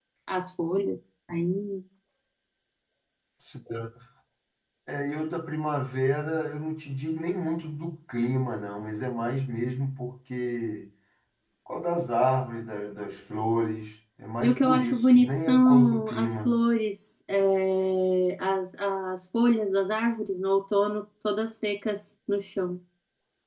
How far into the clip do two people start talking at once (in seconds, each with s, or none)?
14.4 s